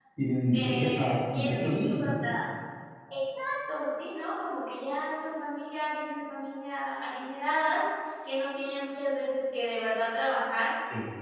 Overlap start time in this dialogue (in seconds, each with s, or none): 0.5 s